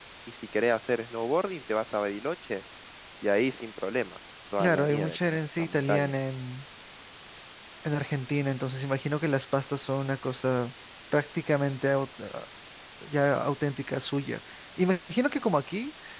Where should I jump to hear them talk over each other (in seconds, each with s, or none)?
4.6 s